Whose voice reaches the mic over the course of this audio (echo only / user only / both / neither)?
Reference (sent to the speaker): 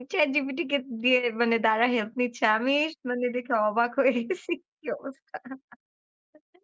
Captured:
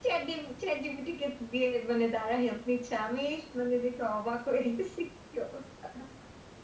echo only